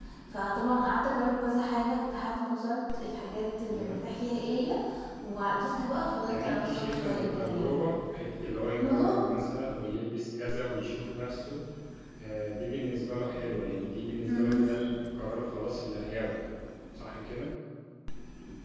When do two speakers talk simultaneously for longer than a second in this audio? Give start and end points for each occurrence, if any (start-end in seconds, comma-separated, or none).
6.3-7.8